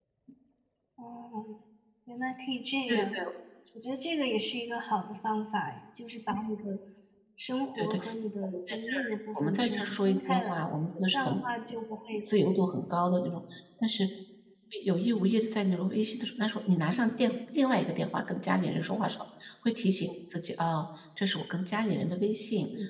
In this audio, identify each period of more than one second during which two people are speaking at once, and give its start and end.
8.4-10.6

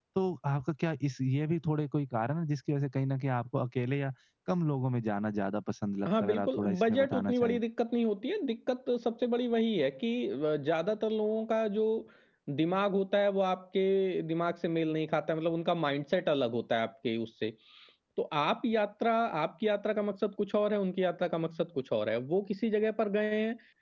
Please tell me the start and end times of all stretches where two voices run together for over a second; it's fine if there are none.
6.2-7.6

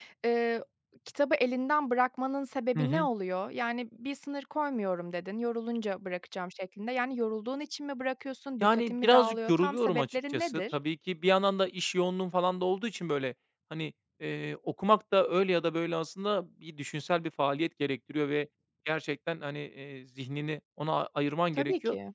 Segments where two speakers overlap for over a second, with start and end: 8.6-10.8

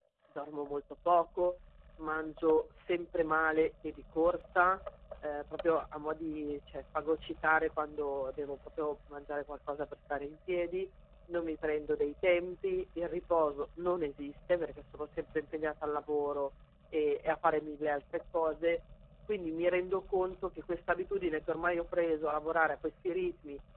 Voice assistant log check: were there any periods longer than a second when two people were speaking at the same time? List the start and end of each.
none

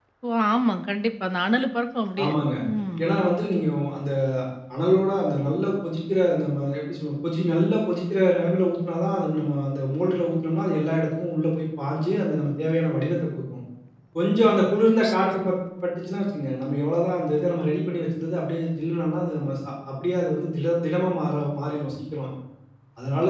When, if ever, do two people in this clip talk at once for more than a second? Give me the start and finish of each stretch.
none

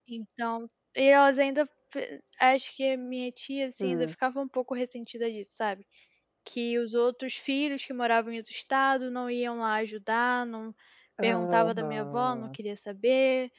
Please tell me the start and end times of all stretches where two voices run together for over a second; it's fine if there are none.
11.2-12.6

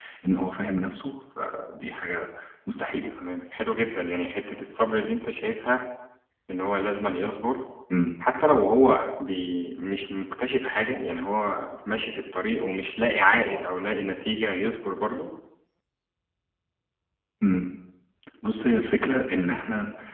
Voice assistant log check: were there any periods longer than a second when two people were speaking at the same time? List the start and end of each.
none

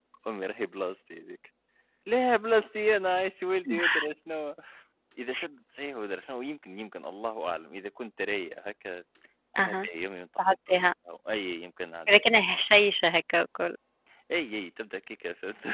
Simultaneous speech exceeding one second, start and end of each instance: none

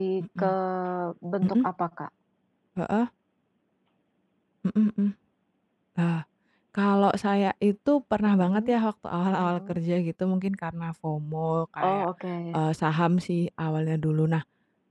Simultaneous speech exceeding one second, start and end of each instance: none

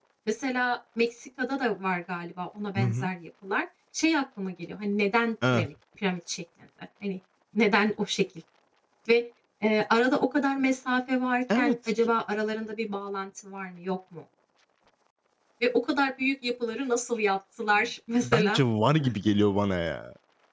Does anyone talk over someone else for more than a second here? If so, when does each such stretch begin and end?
none

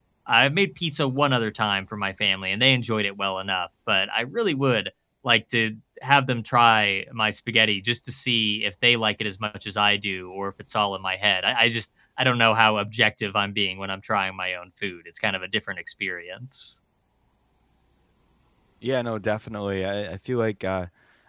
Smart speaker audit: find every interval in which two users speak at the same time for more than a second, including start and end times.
none

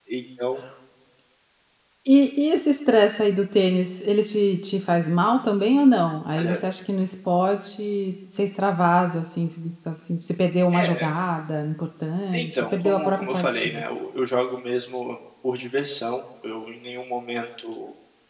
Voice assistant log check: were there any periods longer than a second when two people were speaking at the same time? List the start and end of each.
12.3-13.8

